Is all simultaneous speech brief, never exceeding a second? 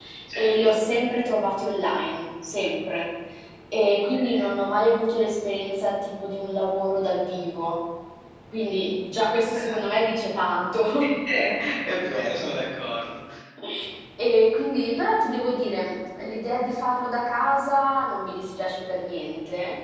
Yes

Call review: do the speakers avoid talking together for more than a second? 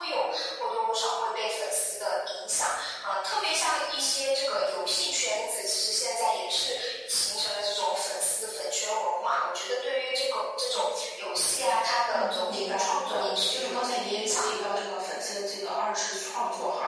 No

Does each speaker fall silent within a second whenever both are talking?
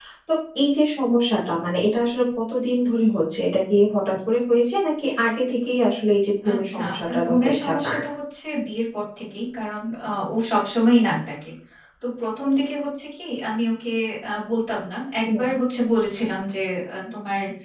No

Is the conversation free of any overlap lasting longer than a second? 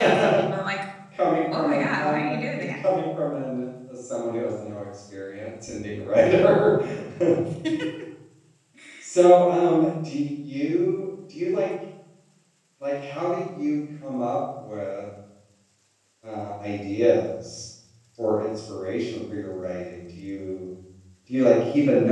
No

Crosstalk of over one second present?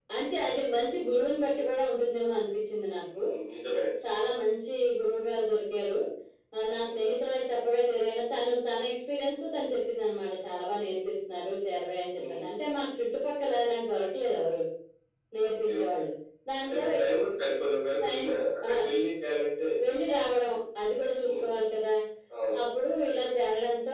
No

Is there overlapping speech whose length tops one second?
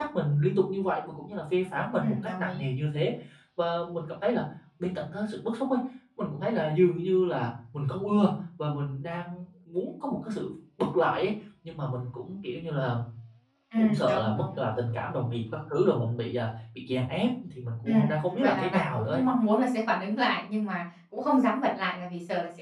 Yes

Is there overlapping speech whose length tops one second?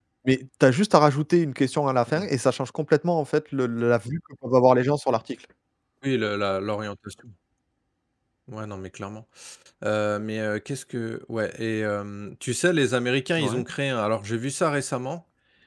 No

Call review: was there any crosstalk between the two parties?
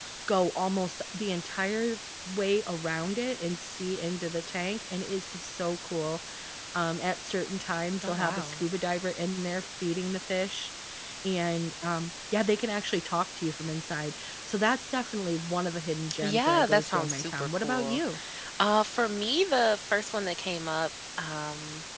Yes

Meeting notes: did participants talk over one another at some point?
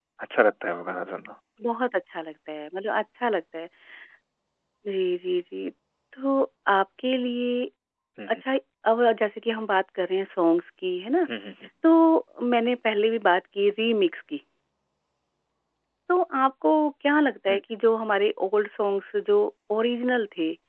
No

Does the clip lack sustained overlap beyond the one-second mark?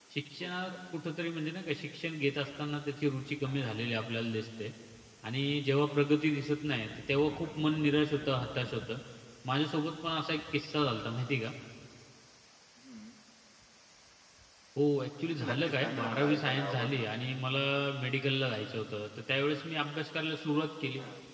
No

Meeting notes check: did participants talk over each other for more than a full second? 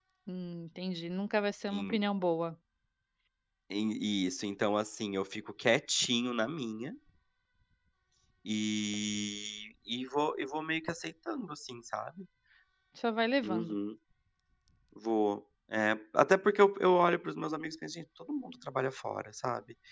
No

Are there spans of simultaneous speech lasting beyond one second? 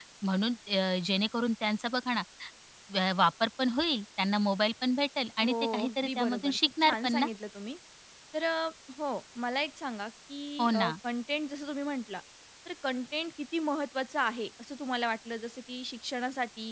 Yes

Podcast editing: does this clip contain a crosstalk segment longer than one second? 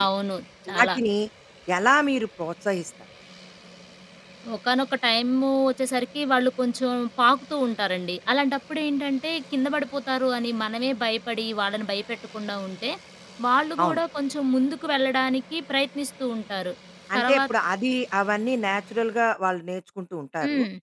No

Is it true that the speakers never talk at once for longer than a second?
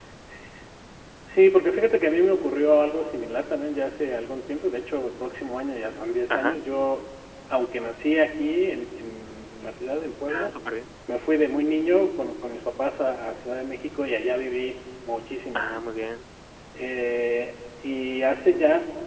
Yes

